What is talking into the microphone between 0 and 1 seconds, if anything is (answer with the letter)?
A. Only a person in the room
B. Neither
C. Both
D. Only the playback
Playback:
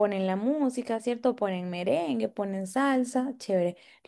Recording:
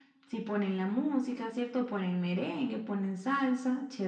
D